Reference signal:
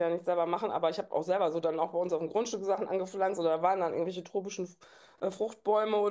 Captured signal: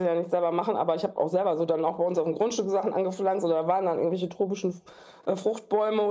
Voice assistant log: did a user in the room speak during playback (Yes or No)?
No